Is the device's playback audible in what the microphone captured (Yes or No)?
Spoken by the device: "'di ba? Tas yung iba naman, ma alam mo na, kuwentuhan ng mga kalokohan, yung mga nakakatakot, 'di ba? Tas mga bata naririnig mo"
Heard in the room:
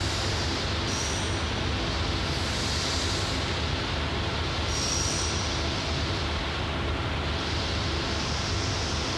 No